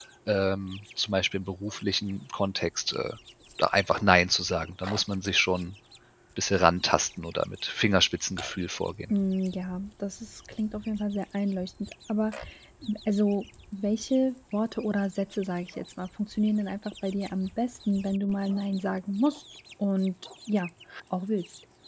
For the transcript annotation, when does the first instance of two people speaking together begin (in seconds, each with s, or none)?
none